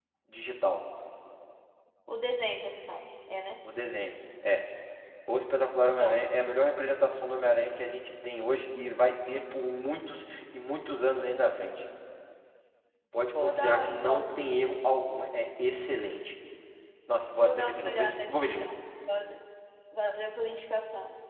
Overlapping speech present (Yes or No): Yes